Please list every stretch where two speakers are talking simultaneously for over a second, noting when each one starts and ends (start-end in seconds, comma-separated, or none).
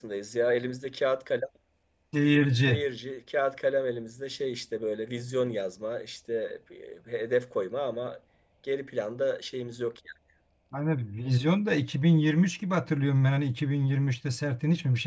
none